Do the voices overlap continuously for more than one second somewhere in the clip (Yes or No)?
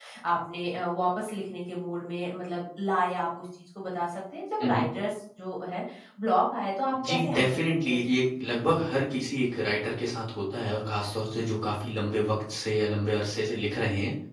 Yes